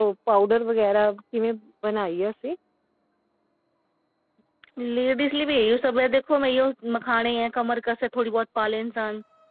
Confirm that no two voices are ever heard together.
Yes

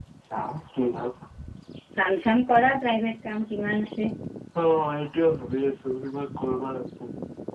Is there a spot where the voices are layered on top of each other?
No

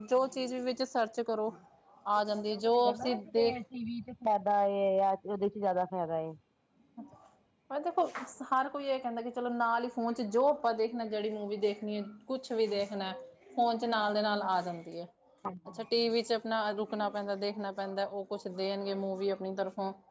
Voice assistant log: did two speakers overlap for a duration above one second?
Yes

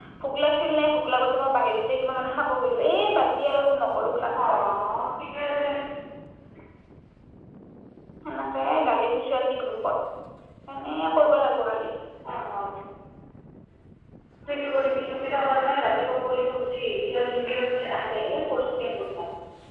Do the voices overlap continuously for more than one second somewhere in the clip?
No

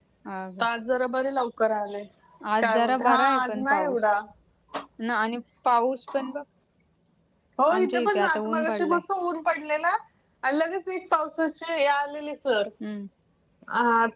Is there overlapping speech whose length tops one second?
Yes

